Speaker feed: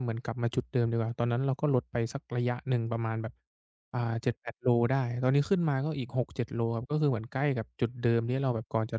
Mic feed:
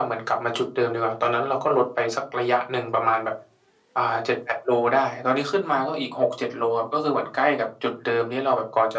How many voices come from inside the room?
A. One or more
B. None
B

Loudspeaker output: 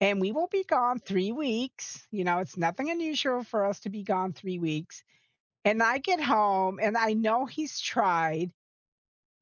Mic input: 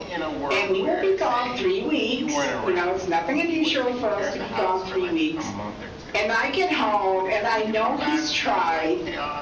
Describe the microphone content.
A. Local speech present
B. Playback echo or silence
A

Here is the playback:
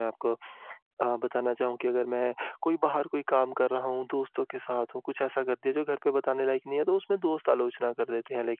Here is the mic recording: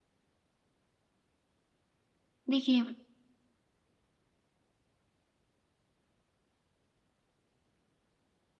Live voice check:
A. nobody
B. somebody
B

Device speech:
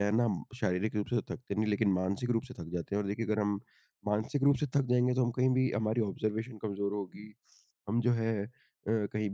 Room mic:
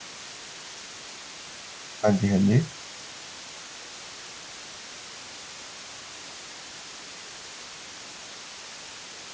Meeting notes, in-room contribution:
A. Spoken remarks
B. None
A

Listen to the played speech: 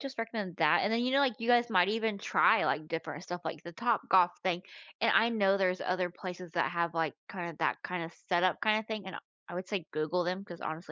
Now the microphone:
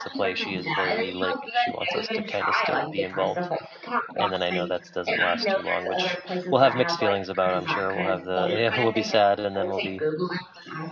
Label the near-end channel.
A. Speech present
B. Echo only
A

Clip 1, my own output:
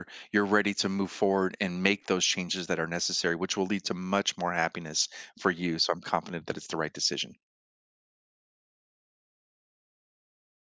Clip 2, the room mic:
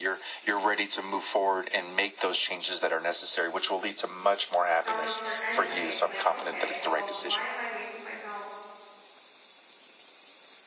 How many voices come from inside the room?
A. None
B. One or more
B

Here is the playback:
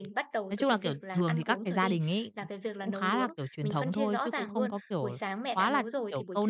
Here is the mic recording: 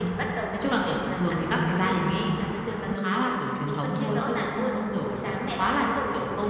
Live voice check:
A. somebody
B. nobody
B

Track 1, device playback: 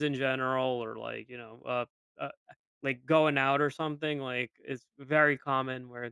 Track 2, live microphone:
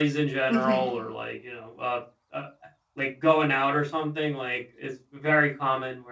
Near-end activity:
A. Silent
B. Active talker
B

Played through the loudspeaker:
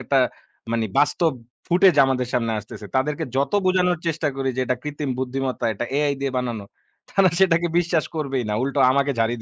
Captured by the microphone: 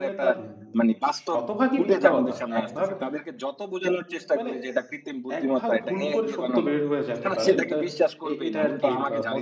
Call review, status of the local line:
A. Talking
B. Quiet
A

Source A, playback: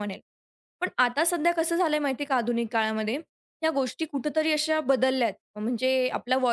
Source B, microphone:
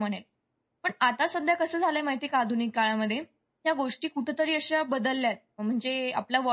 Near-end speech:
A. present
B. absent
B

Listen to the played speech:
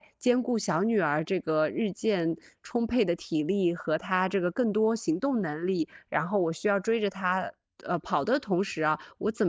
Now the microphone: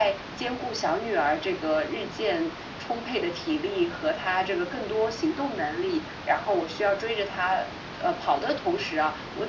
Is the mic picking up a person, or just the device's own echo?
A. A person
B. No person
B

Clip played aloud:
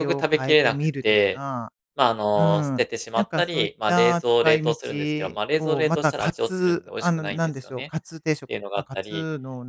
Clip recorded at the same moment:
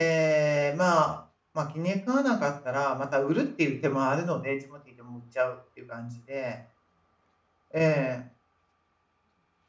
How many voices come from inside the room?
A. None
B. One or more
B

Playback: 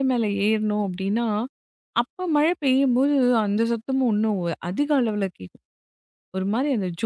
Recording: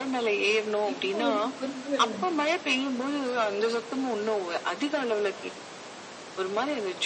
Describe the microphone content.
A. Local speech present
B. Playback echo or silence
A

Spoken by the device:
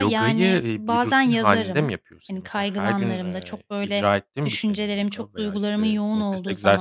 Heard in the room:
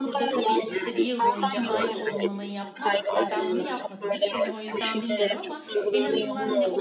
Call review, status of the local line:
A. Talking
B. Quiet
A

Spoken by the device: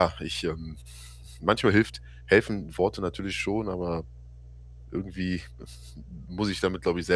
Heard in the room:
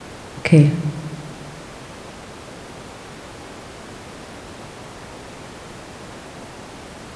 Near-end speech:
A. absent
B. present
B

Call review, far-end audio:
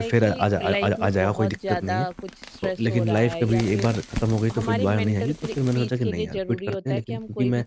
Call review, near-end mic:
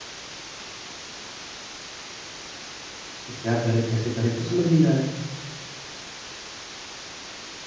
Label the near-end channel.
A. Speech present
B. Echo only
A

